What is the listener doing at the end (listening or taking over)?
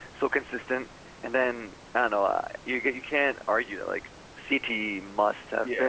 taking over